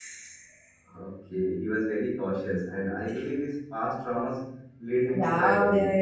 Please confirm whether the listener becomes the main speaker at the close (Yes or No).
Yes